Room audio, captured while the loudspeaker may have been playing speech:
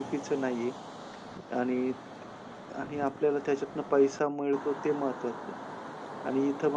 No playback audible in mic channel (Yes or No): Yes